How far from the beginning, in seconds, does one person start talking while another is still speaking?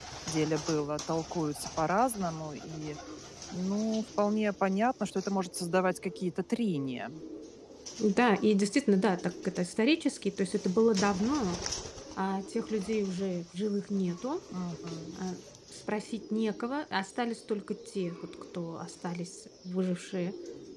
none

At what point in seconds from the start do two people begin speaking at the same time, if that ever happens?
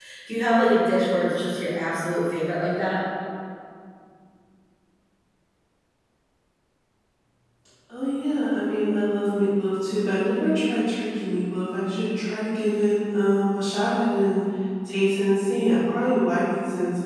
none

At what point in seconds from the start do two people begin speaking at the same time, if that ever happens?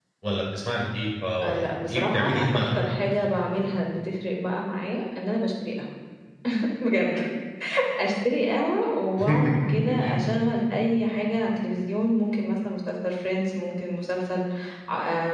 1.4 s

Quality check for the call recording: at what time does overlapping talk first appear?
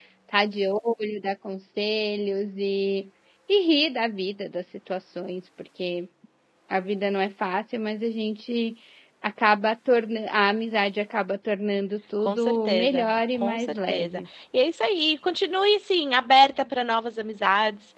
12.2 s

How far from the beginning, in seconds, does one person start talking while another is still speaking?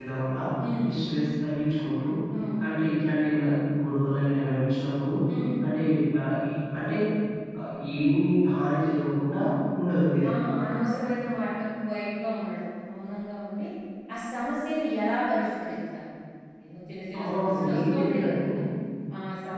17.2 s

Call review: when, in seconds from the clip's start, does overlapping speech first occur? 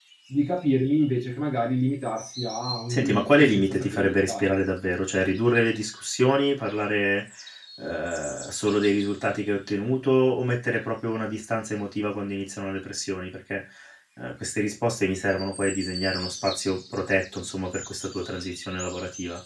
2.9 s

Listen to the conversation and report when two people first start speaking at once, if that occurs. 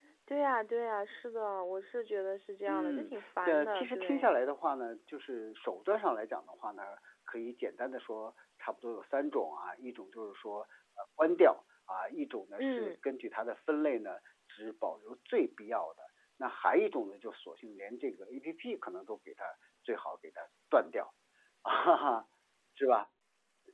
2.7 s

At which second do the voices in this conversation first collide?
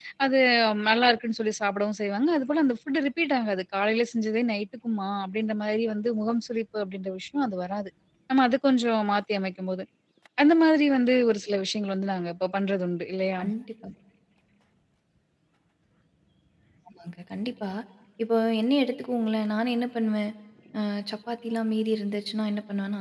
none

